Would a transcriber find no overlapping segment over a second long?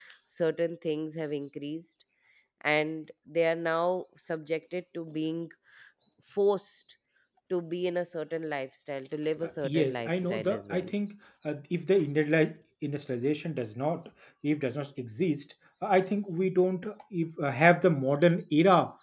No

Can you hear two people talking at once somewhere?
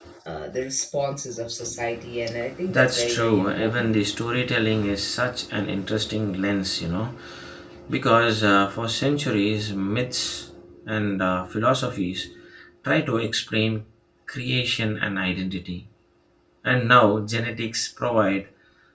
Yes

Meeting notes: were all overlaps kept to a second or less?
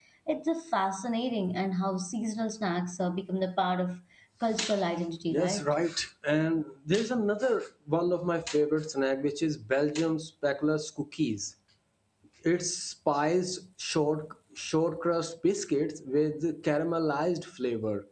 Yes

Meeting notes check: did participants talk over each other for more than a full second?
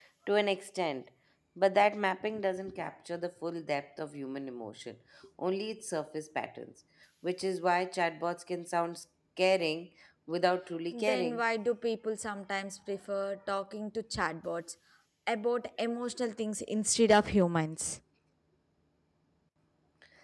No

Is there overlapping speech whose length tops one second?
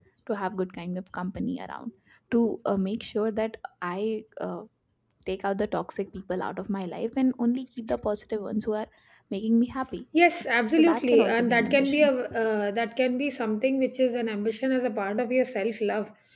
Yes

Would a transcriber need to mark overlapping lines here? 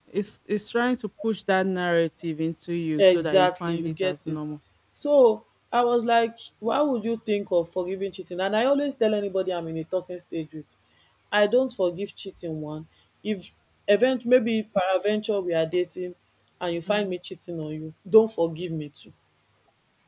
Yes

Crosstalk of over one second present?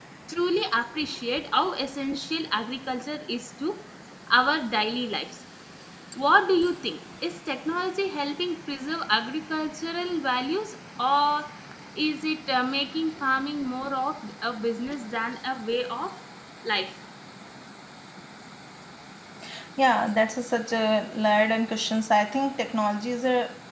No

